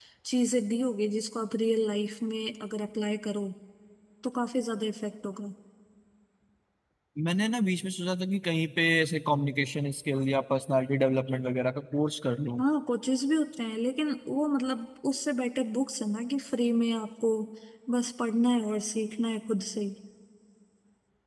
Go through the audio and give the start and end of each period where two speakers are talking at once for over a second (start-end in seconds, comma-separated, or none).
none